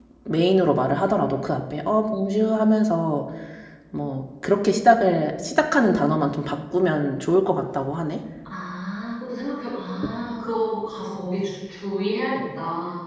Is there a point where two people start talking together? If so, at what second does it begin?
none

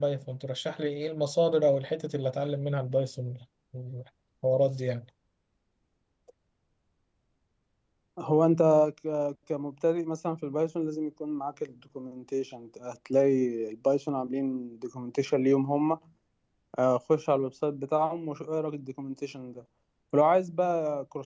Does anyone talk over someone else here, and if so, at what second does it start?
none

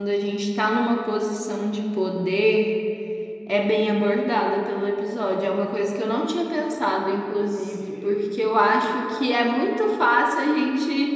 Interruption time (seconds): 7.5 s

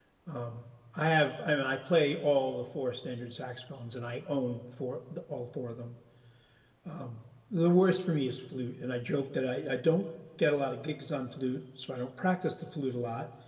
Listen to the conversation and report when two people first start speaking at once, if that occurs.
none

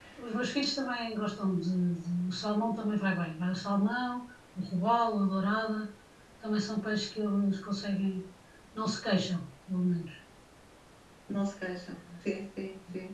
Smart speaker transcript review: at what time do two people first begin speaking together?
none

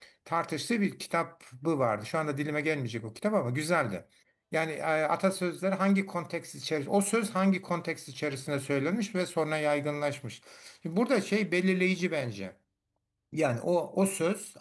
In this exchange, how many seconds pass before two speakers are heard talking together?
none

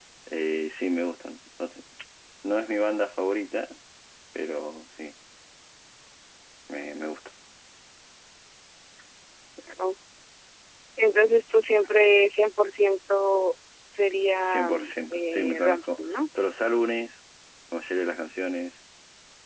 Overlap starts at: 14.4 s

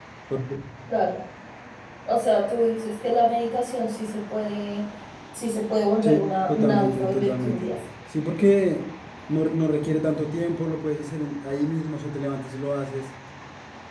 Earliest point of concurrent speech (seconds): 6.0 s

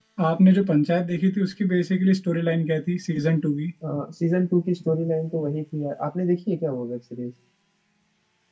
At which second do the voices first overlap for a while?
none

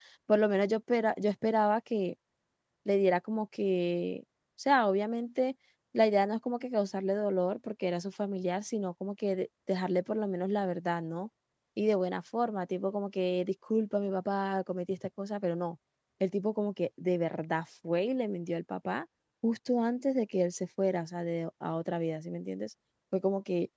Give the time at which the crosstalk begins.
none

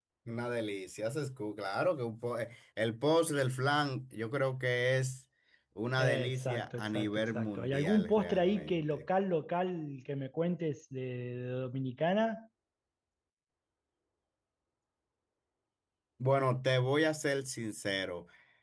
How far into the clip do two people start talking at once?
6.0 s

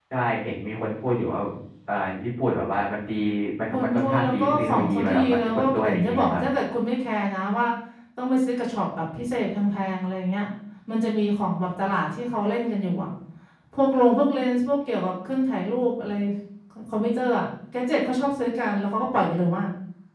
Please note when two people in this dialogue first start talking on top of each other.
3.7 s

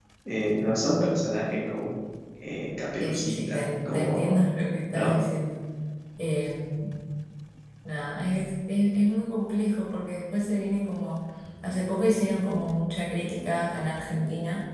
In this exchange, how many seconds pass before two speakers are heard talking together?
3.0 s

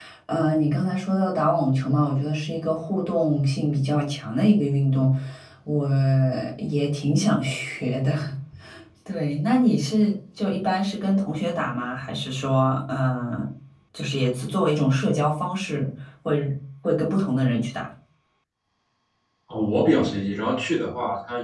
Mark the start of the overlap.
none

